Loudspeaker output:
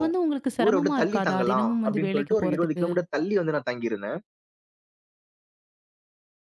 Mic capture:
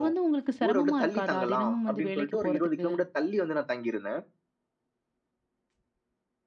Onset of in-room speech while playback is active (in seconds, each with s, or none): none